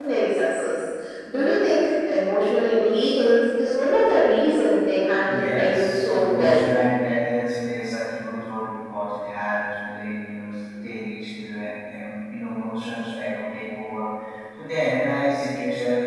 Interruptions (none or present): present